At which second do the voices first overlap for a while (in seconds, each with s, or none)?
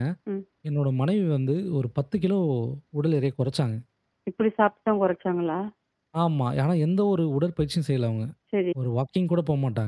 none